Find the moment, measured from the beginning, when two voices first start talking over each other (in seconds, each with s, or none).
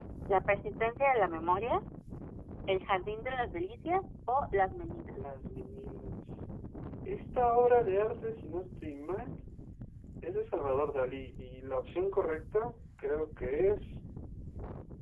none